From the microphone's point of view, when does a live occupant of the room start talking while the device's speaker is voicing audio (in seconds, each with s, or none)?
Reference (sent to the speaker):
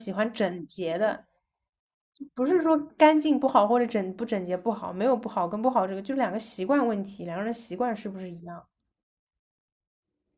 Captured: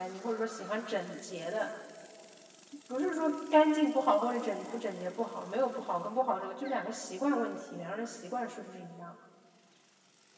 none